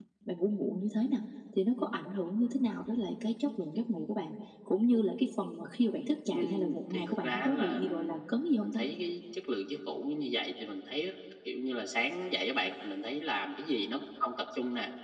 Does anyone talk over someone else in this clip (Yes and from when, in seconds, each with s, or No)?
Yes, from 6.3 s